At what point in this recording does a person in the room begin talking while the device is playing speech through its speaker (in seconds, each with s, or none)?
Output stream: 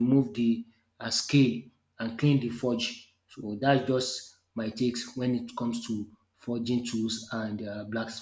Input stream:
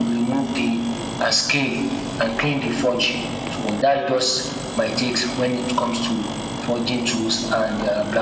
none